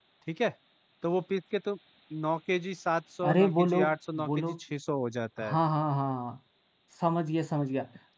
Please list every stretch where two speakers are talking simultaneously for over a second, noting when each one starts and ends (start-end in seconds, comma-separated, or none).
3.2-4.6